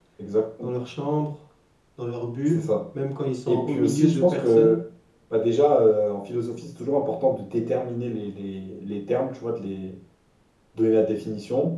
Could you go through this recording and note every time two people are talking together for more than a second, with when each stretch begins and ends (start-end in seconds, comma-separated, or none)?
3.5-4.8